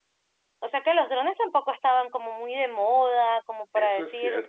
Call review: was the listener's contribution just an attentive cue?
No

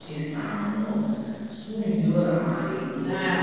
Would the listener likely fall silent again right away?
Yes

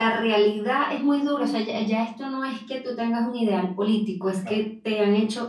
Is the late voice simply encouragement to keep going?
Yes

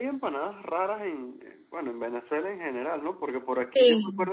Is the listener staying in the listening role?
Yes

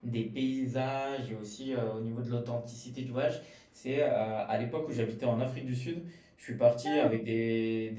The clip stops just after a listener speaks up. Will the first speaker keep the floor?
Yes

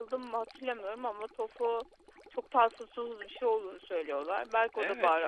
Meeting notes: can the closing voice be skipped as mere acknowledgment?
No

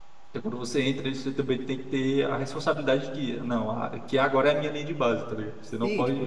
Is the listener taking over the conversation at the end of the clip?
Yes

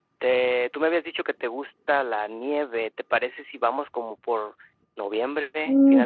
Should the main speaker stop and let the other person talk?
Yes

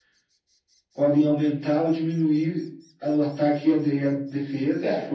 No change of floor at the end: No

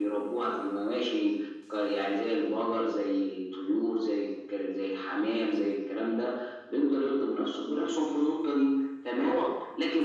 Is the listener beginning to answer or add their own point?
No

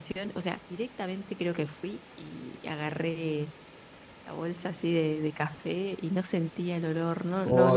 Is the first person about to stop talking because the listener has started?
Yes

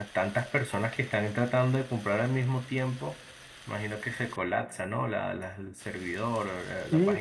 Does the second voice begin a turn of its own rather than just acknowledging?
Yes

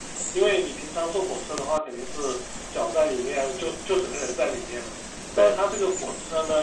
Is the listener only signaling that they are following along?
Yes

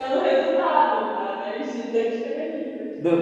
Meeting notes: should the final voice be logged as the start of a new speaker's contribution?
Yes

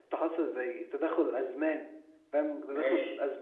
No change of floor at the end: Yes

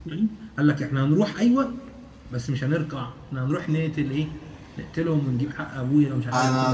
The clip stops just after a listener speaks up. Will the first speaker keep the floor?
No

